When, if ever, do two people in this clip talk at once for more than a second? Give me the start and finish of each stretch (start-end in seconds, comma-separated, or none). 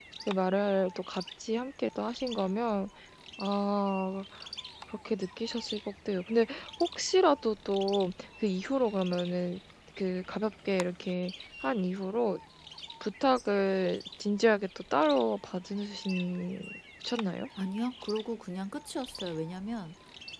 none